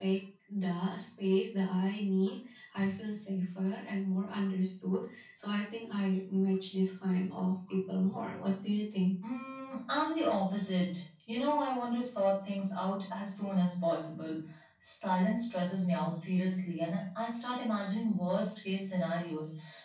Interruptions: none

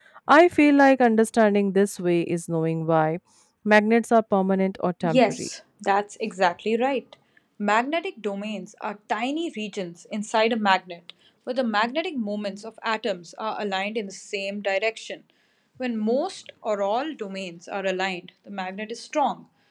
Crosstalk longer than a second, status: none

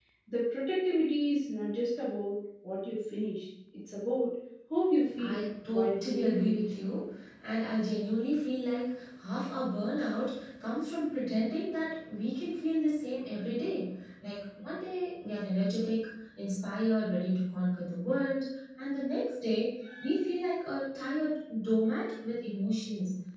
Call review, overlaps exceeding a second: present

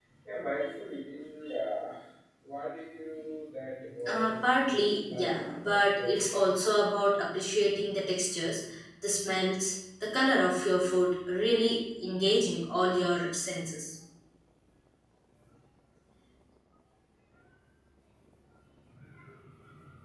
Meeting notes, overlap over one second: present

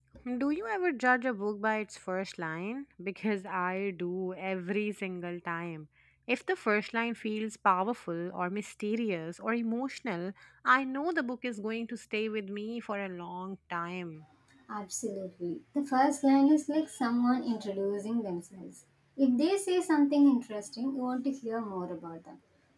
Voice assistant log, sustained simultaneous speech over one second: none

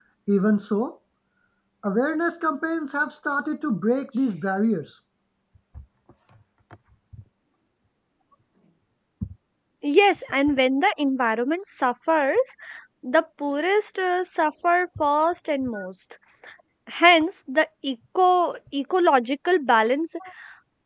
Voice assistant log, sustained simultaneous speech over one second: none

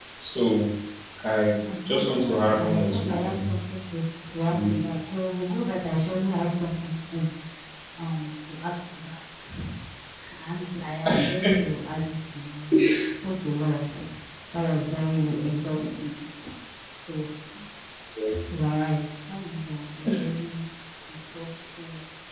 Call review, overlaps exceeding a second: present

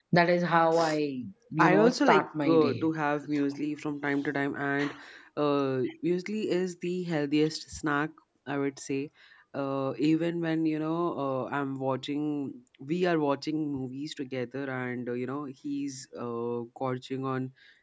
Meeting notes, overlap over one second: present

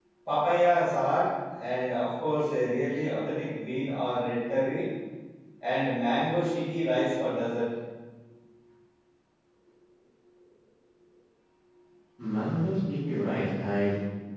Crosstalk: none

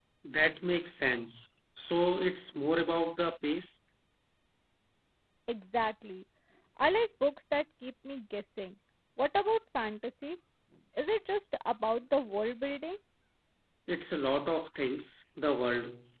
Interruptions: none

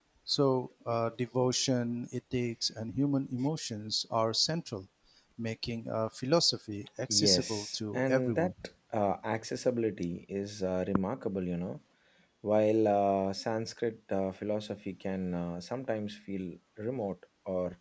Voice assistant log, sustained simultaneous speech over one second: present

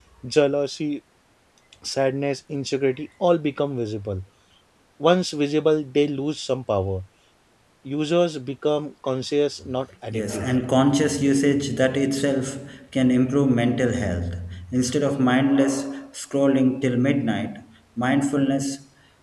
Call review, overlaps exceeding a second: none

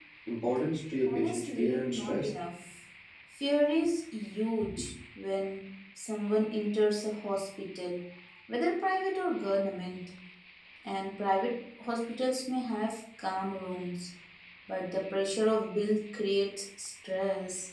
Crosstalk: present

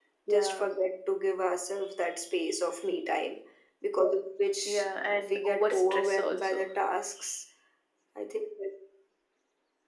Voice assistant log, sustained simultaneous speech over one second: present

